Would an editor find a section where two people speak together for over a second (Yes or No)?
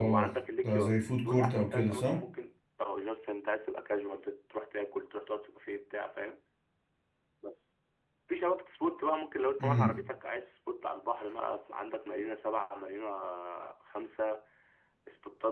Yes